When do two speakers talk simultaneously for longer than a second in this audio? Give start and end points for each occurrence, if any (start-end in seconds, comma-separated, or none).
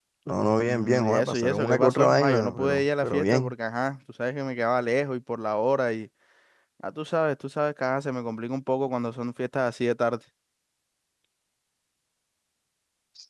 0.7-3.5